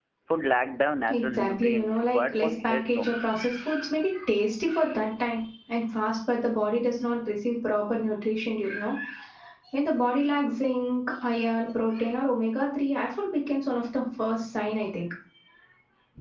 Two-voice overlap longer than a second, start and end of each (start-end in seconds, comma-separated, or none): 1.1-3.1